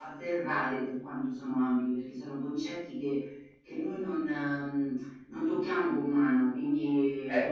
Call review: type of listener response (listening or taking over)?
listening